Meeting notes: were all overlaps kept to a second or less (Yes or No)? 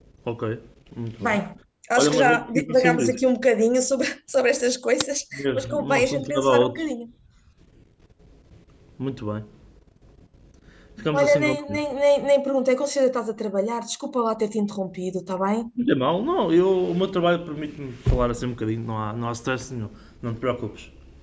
No